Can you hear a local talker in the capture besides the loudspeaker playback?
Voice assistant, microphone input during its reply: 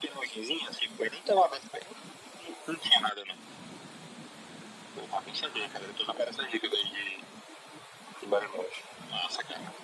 No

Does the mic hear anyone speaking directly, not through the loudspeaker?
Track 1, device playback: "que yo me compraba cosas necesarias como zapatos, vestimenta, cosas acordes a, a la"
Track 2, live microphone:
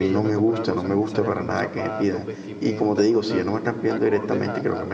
Yes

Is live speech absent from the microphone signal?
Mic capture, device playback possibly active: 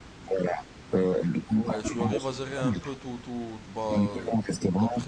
No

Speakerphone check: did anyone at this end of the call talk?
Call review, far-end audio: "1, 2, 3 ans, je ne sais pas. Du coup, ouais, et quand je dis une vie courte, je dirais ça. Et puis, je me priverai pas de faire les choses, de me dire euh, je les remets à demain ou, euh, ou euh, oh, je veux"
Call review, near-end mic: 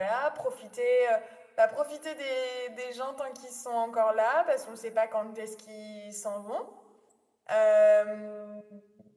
Yes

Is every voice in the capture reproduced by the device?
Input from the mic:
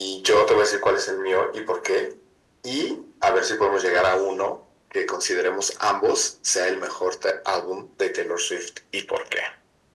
Yes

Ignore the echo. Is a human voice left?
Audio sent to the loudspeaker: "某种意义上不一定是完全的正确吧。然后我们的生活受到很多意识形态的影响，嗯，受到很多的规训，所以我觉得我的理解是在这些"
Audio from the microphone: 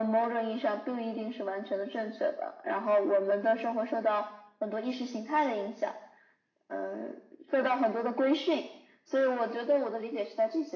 No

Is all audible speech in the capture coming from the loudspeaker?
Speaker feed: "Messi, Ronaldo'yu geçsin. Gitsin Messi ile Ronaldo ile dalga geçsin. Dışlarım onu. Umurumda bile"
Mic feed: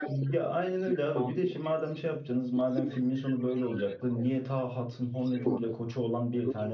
No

